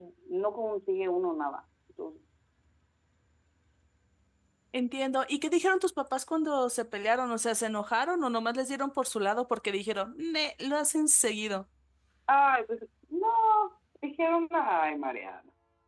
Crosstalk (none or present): none